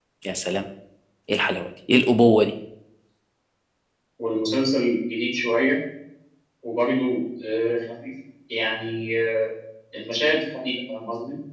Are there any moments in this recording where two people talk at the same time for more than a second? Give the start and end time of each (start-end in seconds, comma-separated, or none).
none